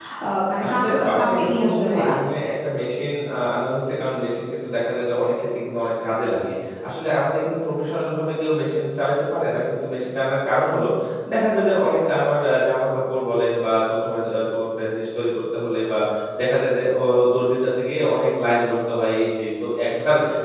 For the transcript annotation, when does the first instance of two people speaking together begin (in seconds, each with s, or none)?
0.6 s